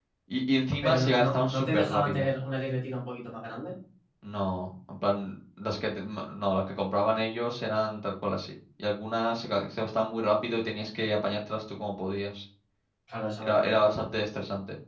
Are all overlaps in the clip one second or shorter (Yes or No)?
No